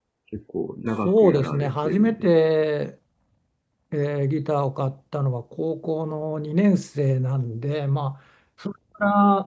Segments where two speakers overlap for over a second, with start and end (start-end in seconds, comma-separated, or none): 1.0-2.3